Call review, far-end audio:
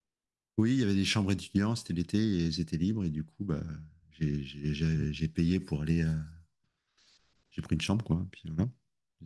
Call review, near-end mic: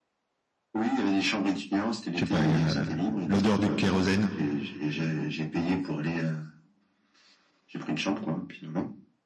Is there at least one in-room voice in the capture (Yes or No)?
Yes